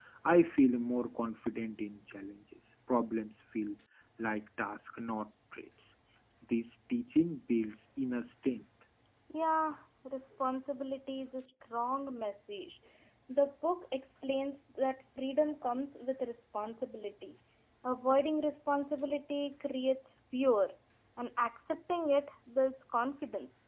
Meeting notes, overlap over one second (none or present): none